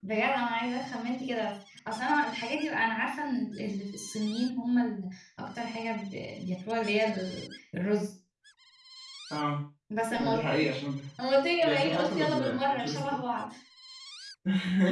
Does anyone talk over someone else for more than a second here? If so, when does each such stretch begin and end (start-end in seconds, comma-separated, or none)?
11.6-13.0